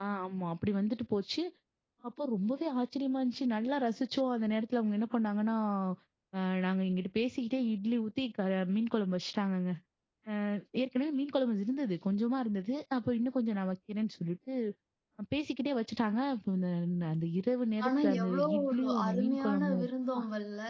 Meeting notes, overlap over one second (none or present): present